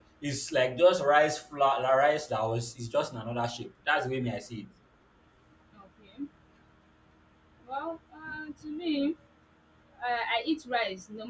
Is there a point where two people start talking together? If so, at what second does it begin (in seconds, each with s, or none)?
none